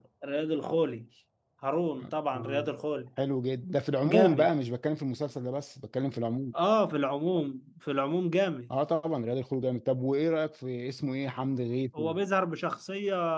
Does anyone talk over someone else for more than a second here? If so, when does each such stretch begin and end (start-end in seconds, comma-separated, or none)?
none